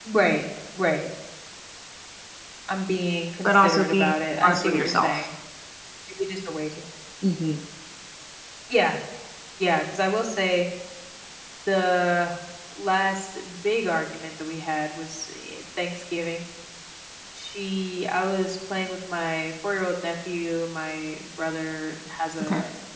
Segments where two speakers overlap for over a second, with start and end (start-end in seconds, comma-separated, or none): 3.4-5.3